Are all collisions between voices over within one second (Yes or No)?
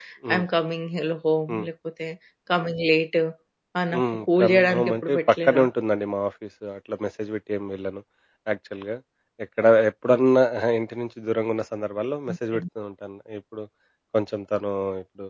No